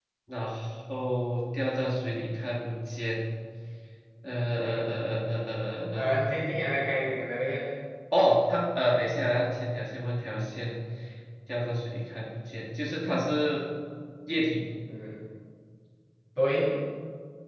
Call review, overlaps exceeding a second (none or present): none